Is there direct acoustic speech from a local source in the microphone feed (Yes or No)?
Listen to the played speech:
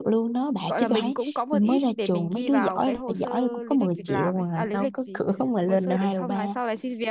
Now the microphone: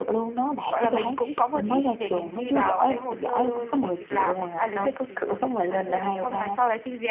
No